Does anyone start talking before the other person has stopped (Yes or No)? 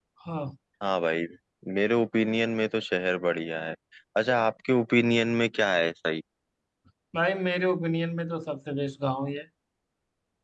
No